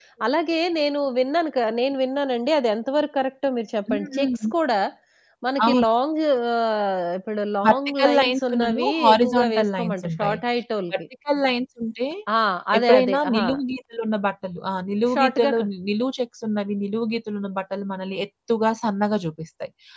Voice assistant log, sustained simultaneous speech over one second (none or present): present